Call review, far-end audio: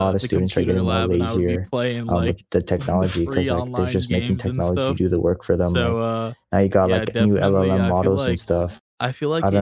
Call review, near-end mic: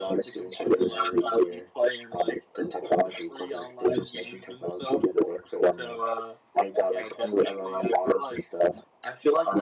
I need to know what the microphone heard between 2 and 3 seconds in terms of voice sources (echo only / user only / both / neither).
echo only